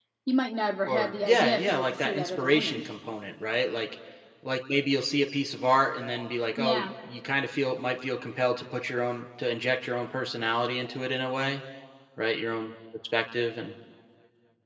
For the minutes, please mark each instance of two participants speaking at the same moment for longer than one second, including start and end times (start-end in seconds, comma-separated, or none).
0.9-2.9